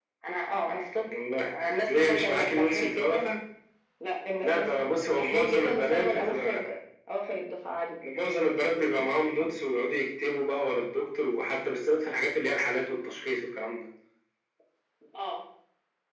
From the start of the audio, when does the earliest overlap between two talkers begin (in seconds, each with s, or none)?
1.4 s